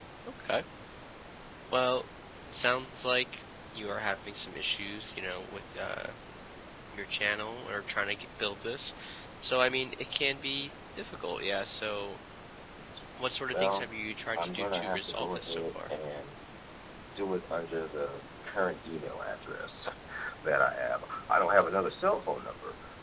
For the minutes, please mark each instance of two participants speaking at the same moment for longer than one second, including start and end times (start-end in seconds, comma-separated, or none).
14.4-15.9